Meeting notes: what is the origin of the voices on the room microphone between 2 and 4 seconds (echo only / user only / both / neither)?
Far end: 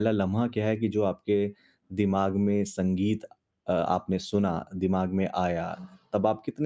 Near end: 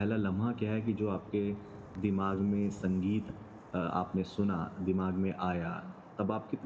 echo only